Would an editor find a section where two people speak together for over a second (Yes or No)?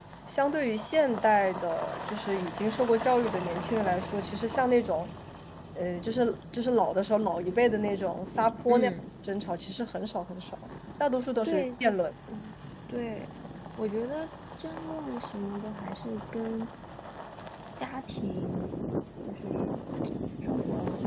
No